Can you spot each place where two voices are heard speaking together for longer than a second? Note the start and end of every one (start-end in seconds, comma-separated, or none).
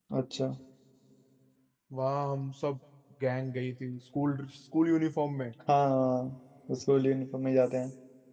none